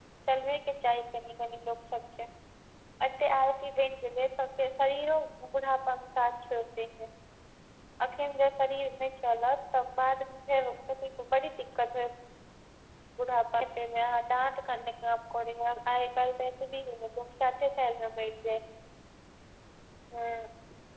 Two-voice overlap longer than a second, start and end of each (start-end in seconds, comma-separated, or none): none